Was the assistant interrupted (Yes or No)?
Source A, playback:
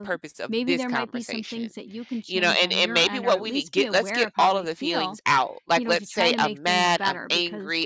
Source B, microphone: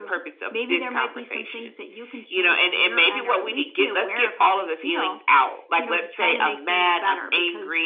No